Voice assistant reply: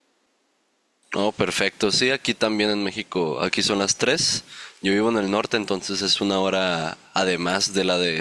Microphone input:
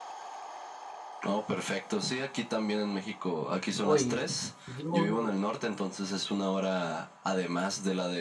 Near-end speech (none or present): present